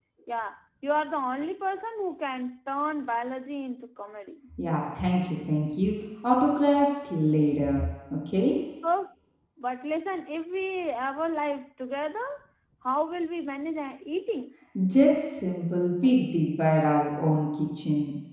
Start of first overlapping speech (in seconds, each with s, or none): none